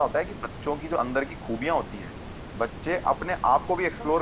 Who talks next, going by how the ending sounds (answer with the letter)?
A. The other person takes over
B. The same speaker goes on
B